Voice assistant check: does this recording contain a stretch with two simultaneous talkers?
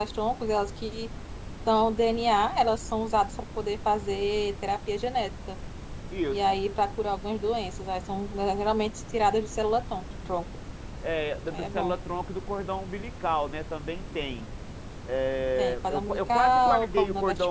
Yes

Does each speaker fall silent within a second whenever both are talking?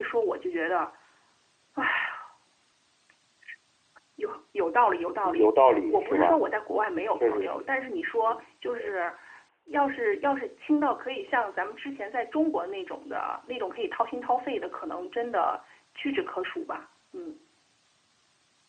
No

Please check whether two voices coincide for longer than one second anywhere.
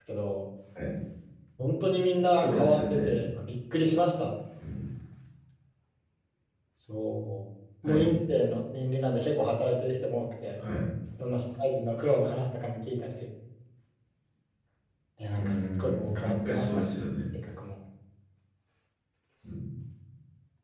Yes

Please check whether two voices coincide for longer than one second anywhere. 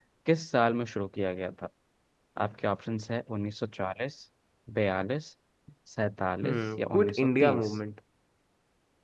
Yes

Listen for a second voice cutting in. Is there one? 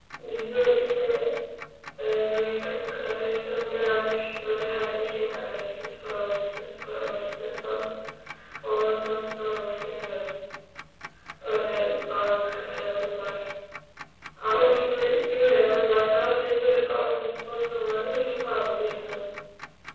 No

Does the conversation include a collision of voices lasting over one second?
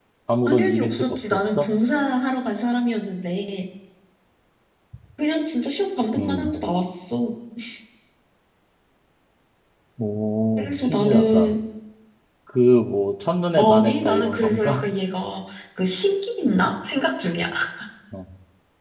Yes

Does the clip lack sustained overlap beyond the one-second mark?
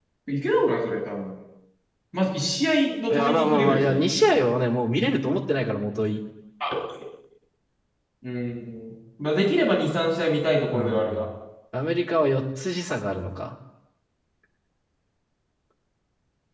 No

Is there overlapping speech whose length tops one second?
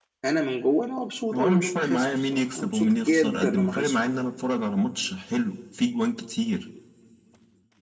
Yes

